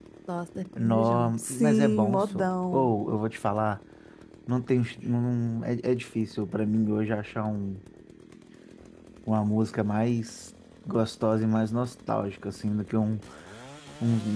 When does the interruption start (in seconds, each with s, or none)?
0.8 s